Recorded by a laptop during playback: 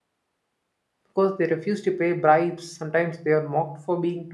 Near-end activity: present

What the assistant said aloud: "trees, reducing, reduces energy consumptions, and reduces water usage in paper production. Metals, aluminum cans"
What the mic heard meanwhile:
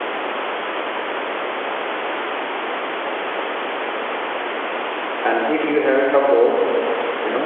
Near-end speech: present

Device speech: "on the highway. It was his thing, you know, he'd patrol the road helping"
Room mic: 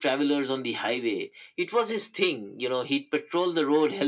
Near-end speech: none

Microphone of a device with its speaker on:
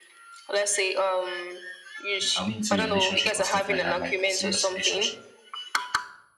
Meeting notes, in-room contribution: present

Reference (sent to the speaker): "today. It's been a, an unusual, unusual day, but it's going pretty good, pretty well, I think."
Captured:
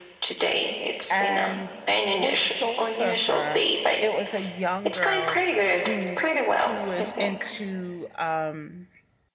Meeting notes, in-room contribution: present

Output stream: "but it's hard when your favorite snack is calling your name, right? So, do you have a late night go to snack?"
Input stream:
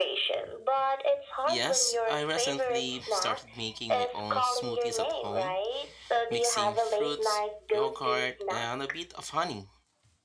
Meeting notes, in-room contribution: present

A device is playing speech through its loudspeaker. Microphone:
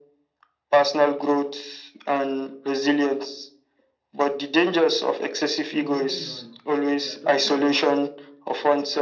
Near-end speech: present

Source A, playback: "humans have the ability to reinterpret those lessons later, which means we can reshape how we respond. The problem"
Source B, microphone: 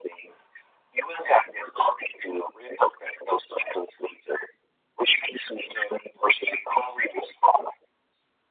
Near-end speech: none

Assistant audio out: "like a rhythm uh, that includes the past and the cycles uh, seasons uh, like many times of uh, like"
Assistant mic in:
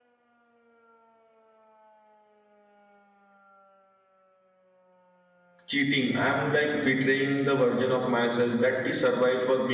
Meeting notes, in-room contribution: present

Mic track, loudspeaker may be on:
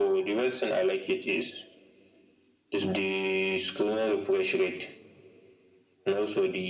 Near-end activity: none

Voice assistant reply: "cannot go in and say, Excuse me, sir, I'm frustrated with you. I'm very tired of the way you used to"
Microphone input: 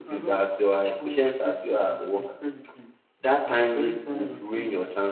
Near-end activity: present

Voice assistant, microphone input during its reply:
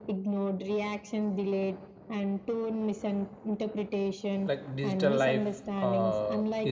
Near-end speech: present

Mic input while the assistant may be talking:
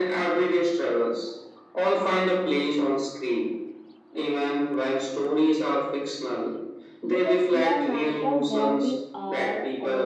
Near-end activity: present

